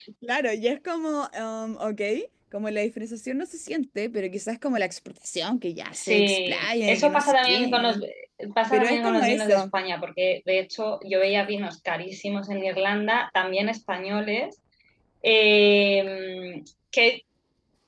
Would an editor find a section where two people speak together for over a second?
Yes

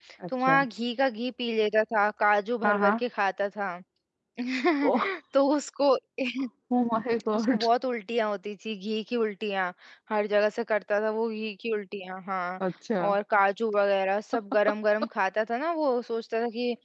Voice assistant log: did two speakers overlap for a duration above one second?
No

